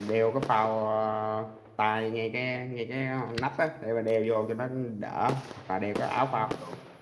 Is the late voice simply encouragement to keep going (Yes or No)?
Yes